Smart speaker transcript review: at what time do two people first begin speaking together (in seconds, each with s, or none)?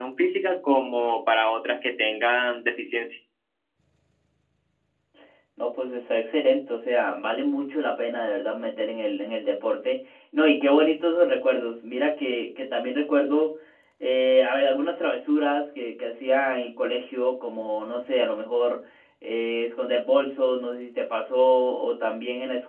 none